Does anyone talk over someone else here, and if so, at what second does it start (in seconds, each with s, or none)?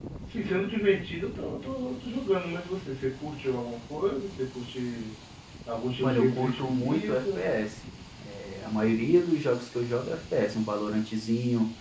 6.0 s